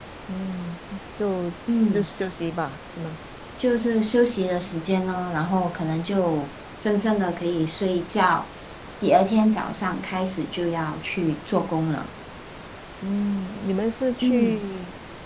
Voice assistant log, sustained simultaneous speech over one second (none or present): none